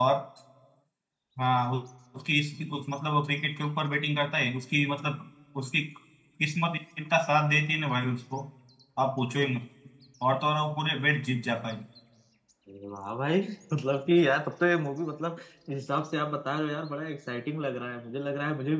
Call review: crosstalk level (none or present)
none